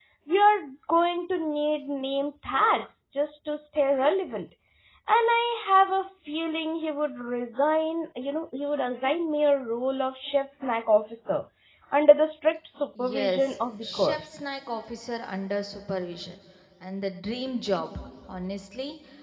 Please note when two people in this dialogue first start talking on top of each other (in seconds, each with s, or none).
13.0 s